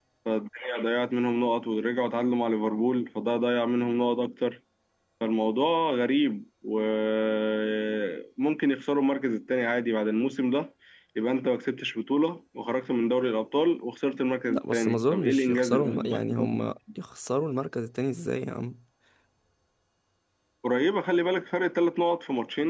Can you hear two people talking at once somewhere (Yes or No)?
Yes